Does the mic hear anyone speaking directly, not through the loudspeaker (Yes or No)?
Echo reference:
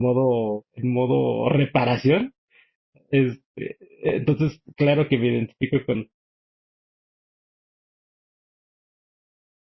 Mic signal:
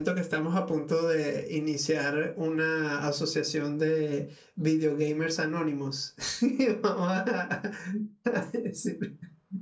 Yes